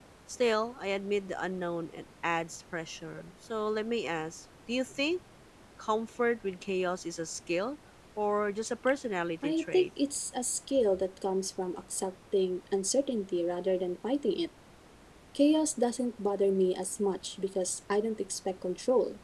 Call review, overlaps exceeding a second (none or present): none